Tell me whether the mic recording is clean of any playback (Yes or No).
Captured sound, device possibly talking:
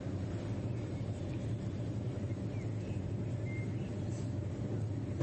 Yes